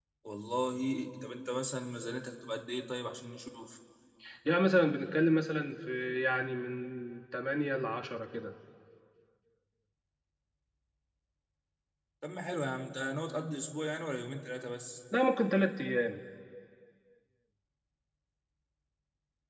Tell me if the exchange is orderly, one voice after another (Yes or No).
Yes